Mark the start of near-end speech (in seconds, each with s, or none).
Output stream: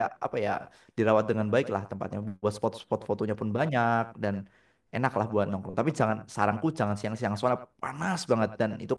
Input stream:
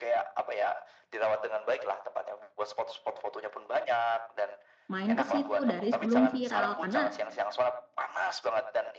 4.9 s